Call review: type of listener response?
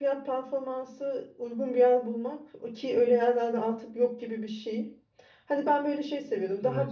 listening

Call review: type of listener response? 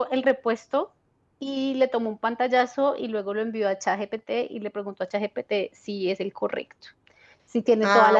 listening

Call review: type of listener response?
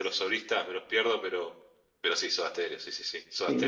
taking over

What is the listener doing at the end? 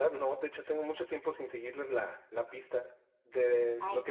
listening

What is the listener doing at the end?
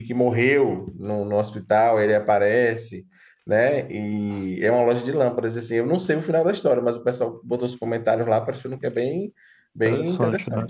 taking over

